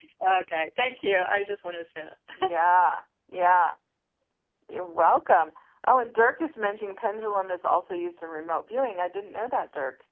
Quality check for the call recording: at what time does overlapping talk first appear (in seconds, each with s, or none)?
none